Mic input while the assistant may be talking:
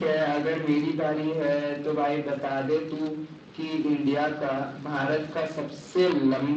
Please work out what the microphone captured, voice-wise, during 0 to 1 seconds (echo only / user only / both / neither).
echo only